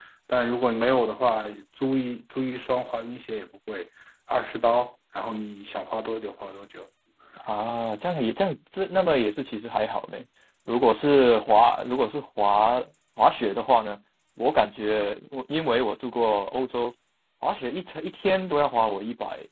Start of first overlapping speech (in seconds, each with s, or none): none